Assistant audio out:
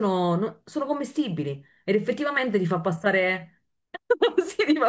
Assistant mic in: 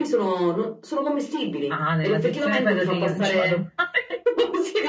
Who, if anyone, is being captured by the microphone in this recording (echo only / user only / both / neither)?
both